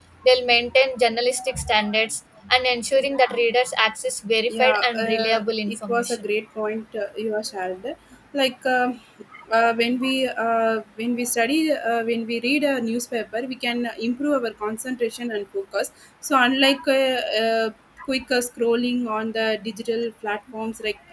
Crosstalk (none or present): present